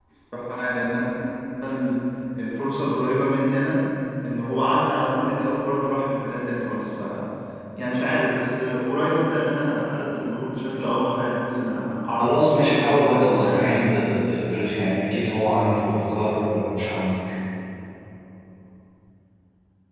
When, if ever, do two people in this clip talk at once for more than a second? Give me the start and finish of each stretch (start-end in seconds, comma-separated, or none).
12.2-13.7